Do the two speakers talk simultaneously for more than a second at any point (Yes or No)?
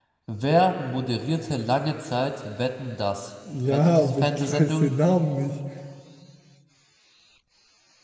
Yes